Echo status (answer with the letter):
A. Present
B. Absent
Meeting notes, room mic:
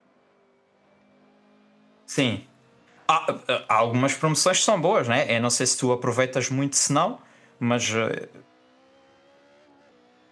B